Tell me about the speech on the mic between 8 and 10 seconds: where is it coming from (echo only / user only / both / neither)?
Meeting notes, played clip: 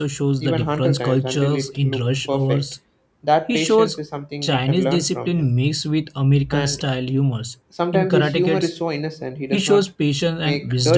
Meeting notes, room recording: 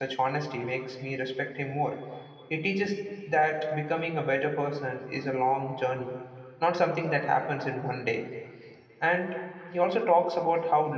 user only